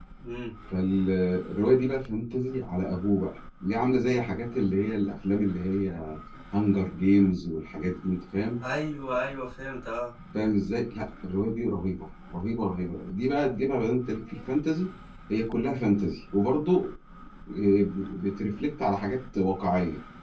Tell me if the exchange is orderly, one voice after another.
Yes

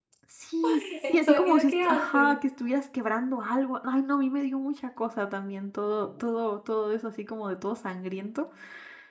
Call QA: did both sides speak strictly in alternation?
No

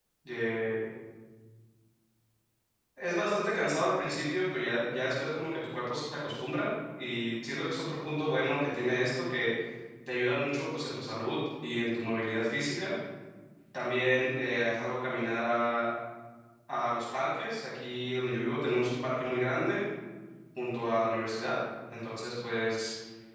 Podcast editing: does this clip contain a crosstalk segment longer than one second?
No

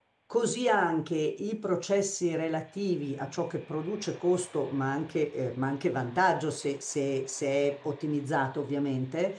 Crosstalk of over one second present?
No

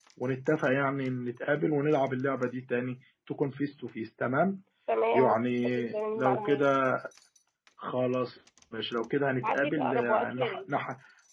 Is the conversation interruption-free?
No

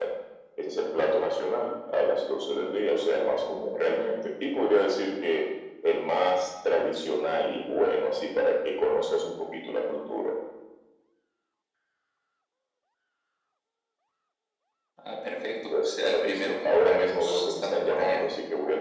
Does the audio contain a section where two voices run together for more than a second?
Yes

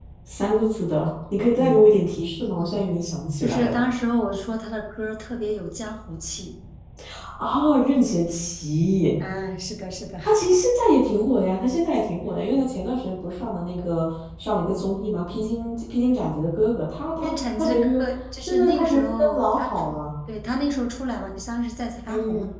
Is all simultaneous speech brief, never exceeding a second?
No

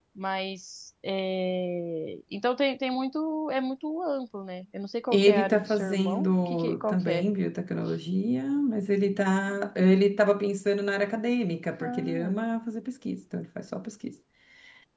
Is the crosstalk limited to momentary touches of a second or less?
No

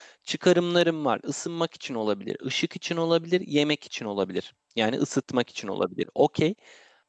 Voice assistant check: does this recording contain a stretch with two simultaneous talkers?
No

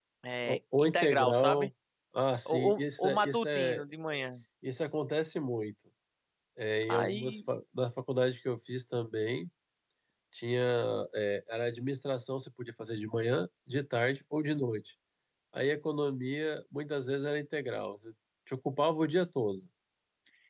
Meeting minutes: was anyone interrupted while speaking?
Yes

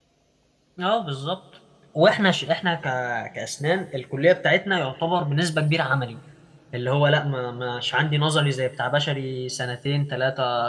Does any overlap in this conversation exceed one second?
No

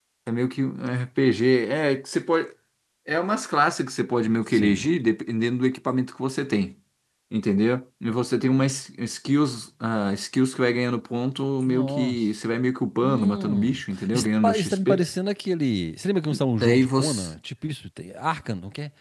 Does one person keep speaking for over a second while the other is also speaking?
Yes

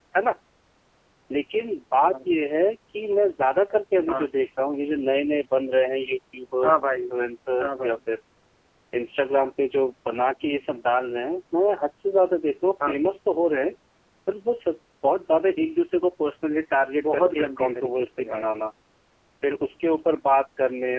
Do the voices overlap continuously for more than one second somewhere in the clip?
Yes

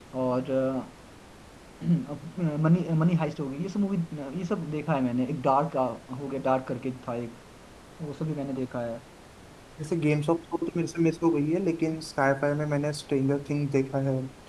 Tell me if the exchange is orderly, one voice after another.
Yes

